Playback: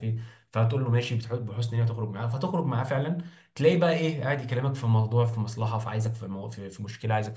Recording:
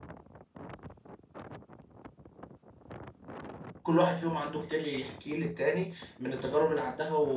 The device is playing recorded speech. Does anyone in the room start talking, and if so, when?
3.8 s

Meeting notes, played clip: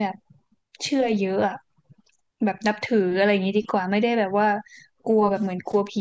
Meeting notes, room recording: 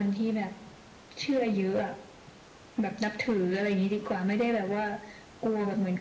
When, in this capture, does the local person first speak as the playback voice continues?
none

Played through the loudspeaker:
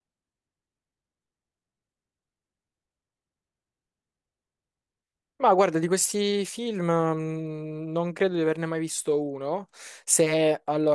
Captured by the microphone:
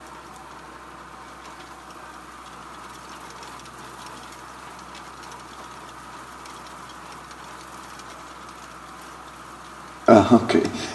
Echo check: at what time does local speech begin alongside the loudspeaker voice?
10.0 s

